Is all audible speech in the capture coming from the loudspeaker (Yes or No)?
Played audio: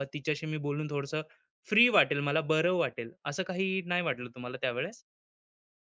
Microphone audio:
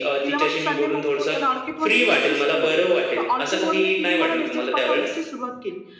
No